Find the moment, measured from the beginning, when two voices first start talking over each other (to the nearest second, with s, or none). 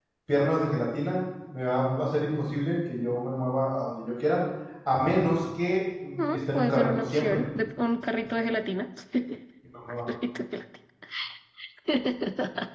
6 s